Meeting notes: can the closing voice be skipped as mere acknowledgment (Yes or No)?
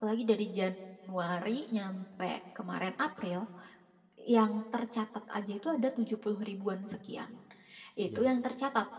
Yes